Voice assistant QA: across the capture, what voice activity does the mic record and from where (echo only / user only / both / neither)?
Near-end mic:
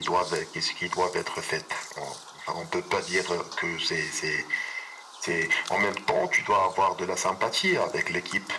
echo only